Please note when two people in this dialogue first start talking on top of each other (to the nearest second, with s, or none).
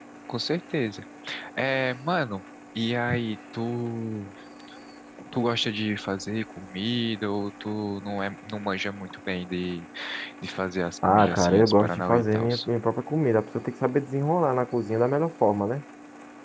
11 s